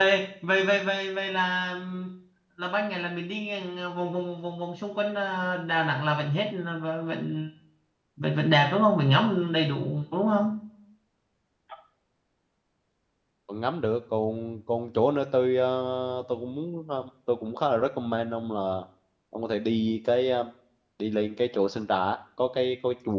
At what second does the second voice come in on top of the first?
none

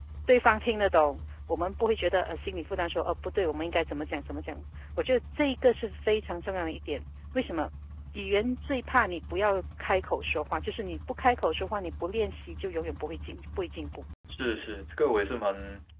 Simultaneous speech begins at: none

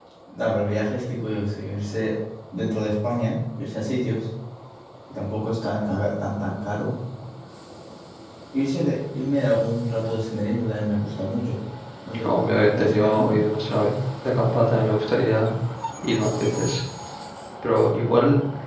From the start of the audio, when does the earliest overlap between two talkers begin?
12 s

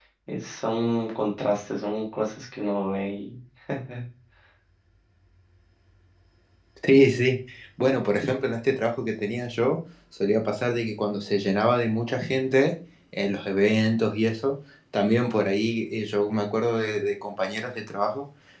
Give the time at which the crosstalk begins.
none

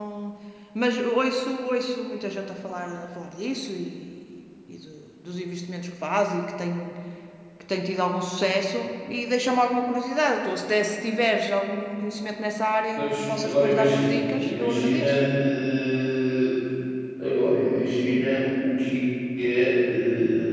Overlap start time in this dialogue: 13 s

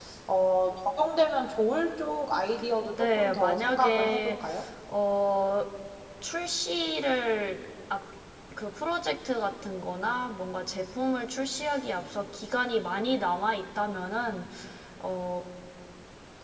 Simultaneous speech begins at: 3 s

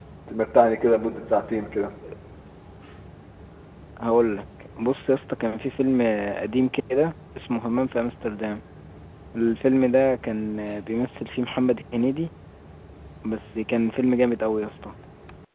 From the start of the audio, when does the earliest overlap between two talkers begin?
none

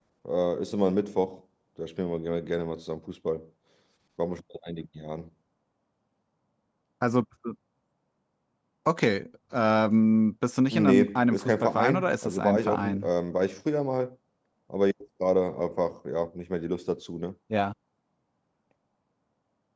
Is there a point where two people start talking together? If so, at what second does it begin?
11 s

